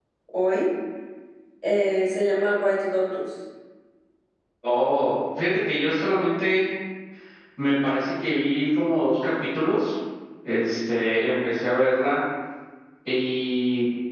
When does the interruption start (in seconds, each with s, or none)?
none